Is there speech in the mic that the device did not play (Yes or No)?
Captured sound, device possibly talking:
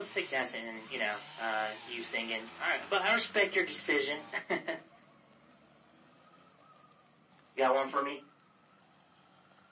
No